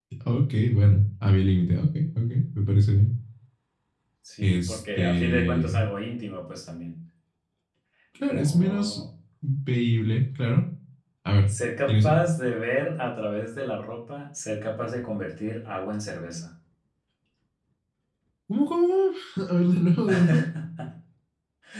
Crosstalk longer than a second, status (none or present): present